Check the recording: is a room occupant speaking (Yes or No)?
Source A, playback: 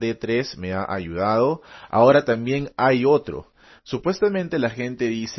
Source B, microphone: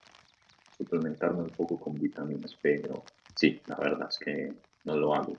Yes